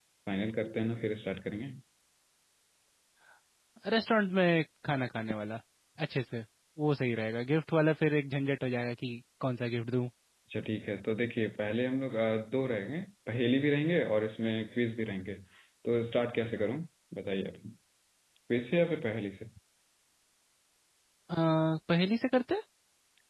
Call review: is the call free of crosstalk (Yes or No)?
Yes